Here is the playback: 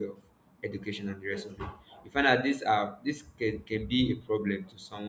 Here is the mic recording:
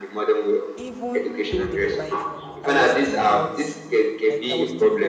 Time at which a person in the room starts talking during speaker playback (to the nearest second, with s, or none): 1 s